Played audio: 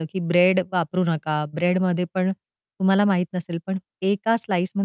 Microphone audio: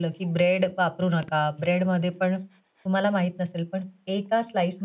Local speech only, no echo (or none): none